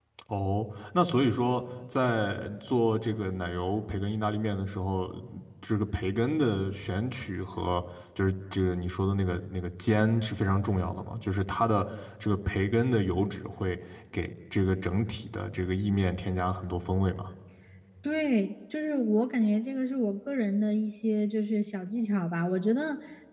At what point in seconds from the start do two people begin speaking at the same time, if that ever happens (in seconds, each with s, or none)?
none